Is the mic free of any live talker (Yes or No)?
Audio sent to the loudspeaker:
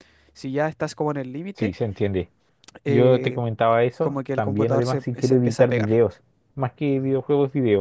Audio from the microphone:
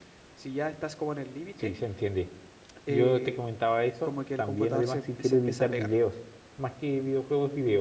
Yes